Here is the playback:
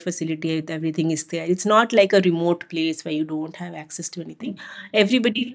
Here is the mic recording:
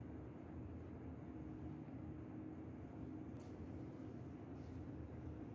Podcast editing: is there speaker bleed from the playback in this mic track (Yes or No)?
No